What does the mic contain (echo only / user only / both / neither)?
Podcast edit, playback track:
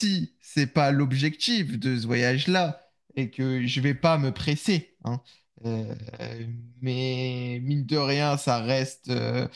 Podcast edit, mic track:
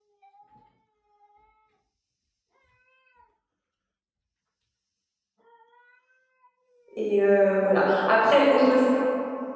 user only